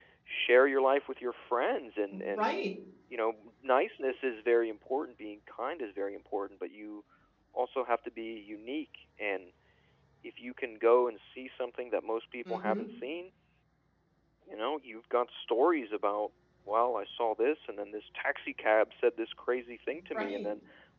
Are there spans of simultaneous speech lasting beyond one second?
No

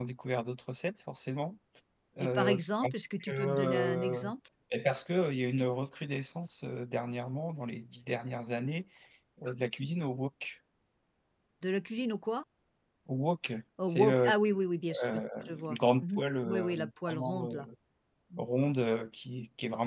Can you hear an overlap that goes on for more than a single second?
Yes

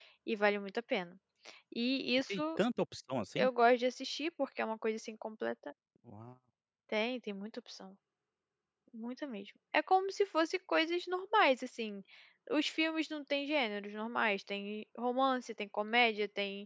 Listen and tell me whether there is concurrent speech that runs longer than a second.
No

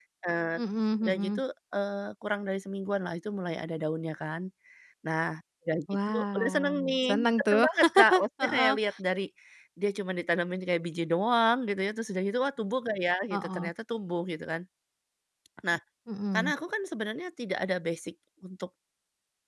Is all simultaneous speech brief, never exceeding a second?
No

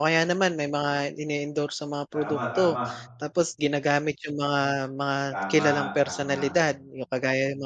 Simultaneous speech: Yes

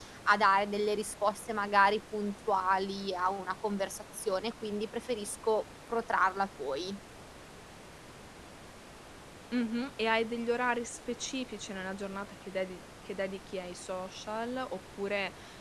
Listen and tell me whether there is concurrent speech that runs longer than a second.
No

